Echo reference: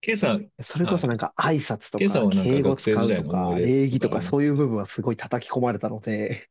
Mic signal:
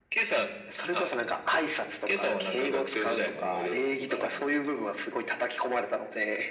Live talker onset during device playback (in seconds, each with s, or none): none